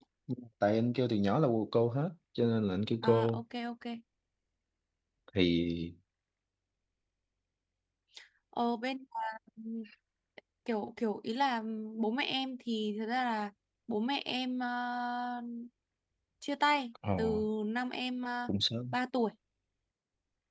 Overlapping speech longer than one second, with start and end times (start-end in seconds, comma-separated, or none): none